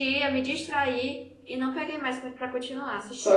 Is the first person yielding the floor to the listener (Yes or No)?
Yes